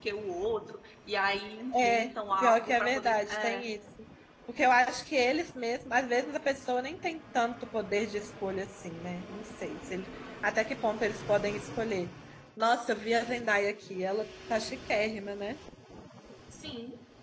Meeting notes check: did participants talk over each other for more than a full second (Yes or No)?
Yes